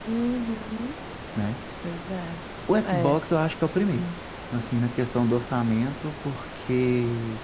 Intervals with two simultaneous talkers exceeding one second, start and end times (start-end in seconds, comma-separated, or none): none